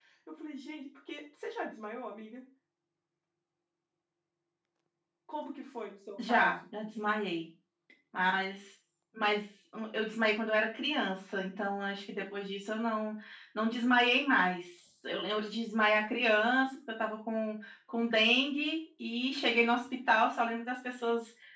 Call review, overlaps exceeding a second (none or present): none